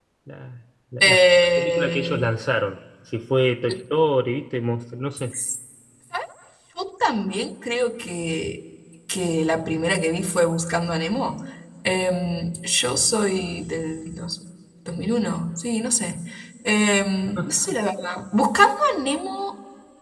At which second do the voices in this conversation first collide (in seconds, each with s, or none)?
1.0 s